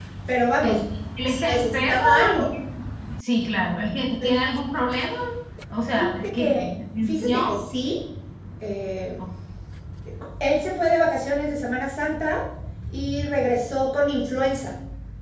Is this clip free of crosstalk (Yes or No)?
No